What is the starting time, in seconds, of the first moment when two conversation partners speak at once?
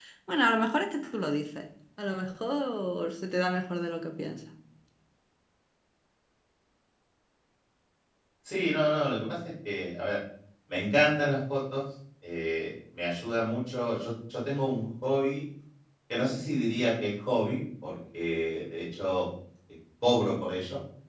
none

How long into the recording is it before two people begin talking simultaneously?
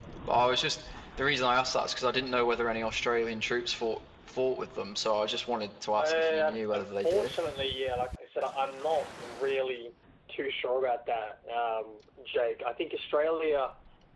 6.0 s

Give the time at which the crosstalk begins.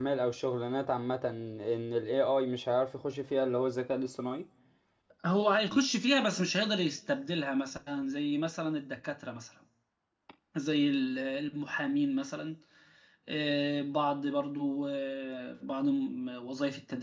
none

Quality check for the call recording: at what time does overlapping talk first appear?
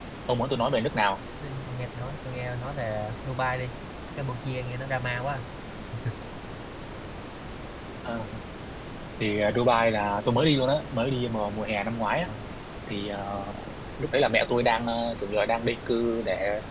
none

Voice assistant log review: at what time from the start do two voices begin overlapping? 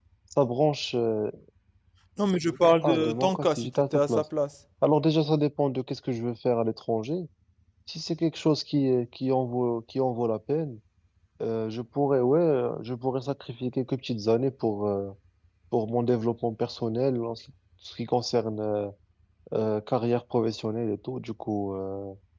2.8 s

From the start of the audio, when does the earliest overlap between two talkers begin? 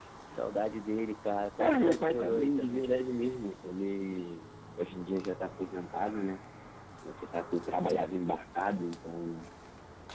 1.6 s

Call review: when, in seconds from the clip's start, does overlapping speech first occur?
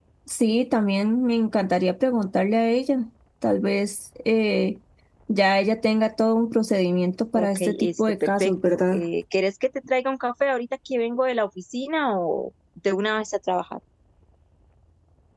7.3 s

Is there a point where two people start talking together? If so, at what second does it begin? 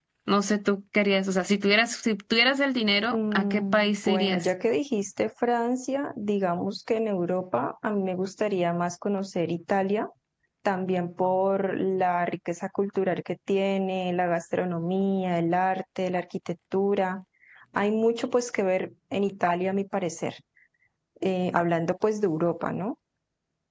3.1 s

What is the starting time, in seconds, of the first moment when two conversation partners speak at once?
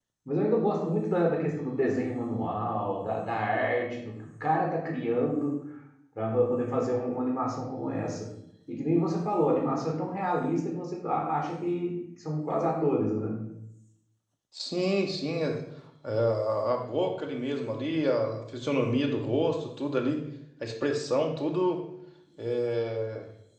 none

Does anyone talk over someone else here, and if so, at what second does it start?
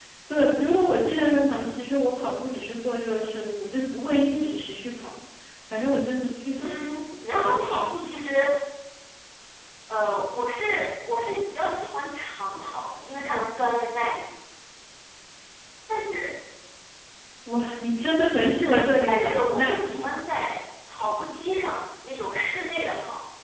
6.6 s

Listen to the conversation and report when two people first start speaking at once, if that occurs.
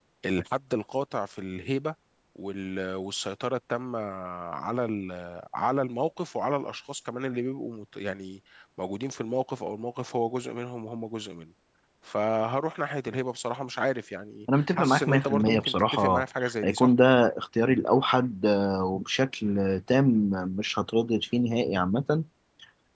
14.6 s

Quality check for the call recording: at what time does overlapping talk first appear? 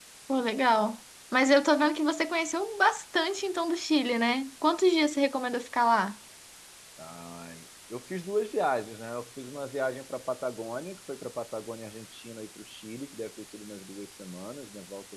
none

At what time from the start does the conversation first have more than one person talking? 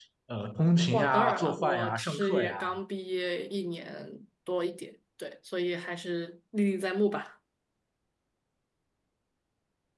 0.9 s

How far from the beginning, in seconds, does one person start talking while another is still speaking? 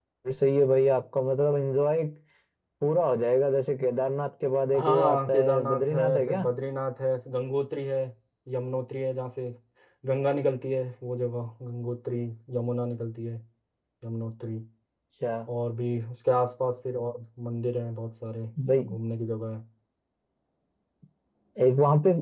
4.8 s

